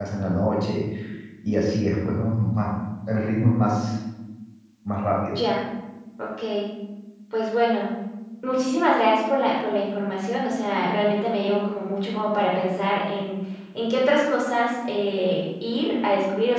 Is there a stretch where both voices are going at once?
No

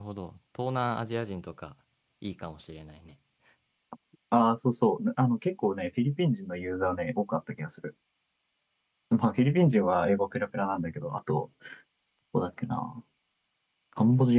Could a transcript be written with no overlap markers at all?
Yes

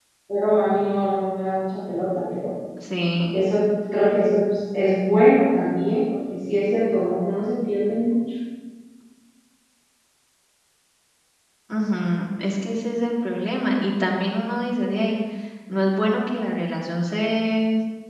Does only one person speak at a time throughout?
Yes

